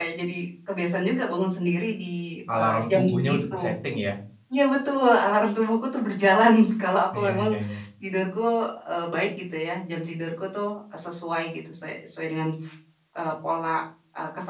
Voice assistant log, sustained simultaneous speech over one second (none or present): present